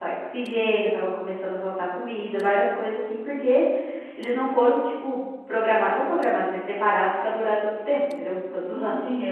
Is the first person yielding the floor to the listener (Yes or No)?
Yes